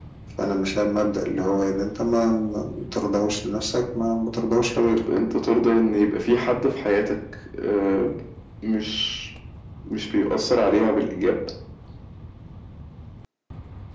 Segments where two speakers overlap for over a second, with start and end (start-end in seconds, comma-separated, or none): none